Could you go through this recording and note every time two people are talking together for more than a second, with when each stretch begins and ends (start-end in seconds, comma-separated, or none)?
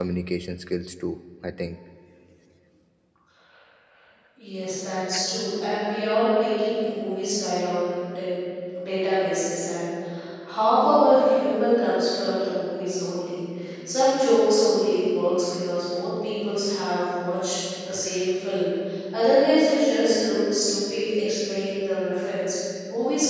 none